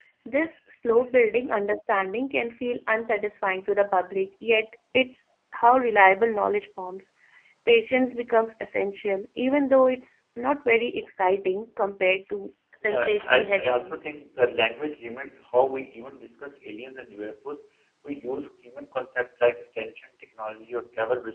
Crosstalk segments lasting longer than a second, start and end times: 12.9-14.1

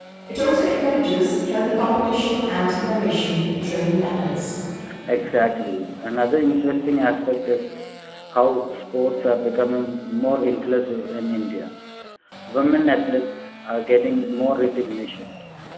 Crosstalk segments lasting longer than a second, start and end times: none

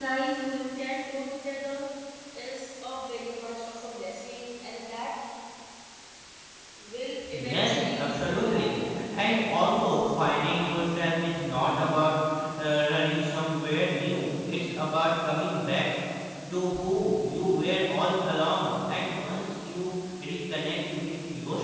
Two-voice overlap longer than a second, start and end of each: 7.5-9.4

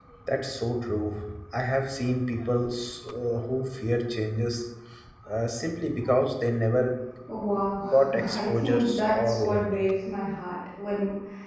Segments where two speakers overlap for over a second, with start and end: 7.9-9.9

